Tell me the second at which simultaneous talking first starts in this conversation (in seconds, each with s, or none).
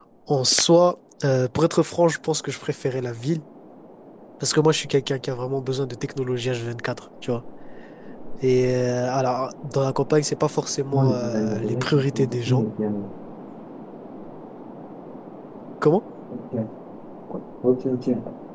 10.9 s